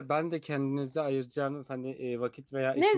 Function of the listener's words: taking over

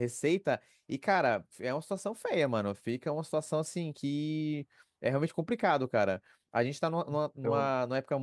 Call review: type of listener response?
listening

